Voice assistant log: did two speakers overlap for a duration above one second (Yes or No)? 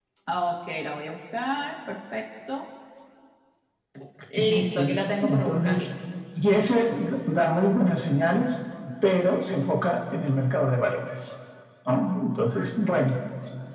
Yes